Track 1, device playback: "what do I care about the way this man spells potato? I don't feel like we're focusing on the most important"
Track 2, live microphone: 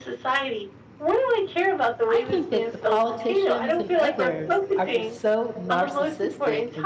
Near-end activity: present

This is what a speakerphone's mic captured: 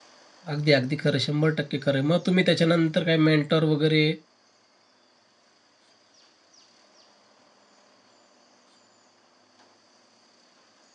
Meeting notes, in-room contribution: present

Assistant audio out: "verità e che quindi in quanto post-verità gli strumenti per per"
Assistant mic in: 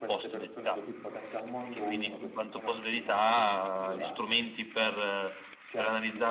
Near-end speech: present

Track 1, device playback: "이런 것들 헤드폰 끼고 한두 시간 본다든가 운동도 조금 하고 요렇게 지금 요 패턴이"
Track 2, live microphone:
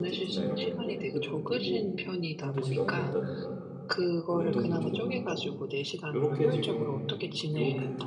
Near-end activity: present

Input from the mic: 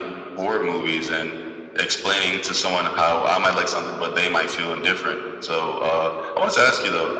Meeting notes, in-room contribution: none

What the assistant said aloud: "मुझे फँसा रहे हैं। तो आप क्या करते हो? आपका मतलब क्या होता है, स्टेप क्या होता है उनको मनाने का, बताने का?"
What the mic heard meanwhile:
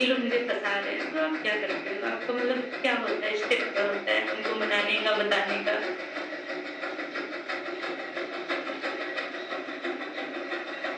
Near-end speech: none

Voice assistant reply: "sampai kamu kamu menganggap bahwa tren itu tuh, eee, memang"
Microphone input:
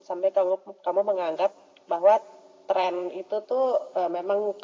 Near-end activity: none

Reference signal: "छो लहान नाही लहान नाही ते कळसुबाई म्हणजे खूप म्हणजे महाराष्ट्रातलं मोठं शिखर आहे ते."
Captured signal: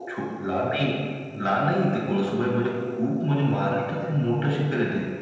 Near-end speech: none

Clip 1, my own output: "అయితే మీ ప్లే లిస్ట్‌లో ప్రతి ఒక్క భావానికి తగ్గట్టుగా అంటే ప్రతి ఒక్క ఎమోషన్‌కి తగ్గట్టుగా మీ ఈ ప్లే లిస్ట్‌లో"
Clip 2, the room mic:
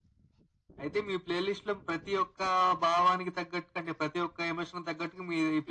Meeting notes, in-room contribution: none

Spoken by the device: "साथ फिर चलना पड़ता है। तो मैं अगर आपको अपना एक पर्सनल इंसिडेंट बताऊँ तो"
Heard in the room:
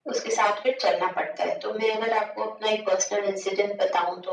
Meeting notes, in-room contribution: none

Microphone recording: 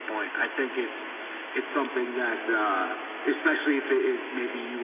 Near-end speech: none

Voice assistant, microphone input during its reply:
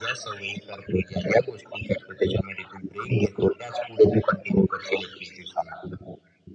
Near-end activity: none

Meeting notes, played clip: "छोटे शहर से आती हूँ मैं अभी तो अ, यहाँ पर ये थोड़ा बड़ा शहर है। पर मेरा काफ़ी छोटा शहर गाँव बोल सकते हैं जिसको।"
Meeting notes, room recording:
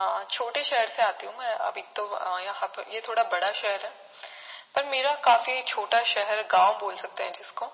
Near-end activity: none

